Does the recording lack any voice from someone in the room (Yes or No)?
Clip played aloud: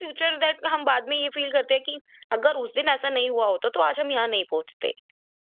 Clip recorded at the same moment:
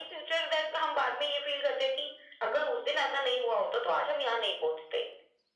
Yes